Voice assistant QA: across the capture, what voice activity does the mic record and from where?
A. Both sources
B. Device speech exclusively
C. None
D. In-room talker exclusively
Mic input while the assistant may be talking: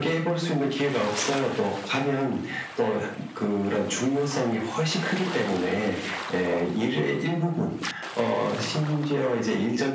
B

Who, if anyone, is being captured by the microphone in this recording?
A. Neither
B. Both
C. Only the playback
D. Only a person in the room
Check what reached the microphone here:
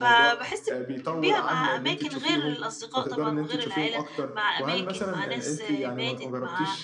B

